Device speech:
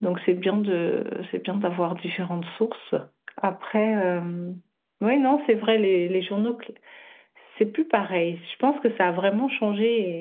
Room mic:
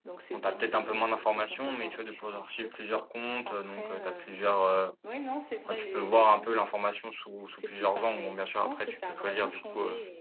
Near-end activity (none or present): present